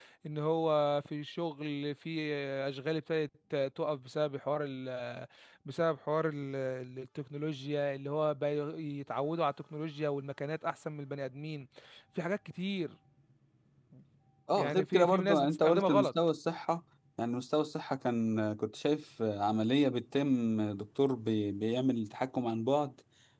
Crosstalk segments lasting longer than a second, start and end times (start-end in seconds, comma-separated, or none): 14.6-16.1